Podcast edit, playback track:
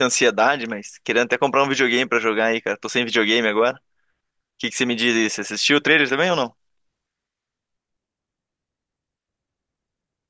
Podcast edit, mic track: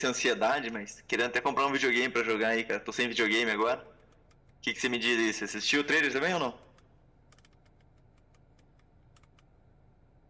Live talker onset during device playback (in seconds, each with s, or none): none